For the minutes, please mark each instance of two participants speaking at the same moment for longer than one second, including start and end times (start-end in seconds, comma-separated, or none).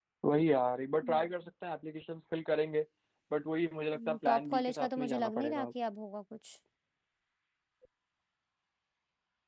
4.0-5.7